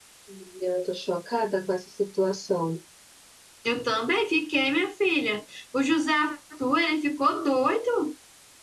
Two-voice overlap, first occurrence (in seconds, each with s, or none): none